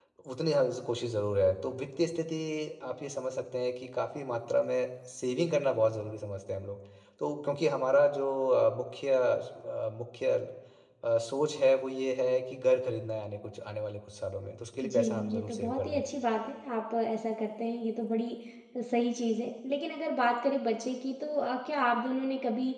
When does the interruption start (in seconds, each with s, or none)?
14.8 s